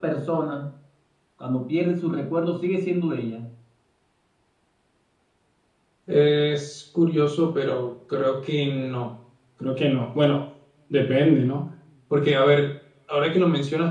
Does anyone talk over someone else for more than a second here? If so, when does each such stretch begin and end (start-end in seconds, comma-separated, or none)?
none